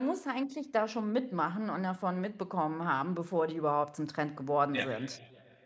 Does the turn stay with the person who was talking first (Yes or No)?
Yes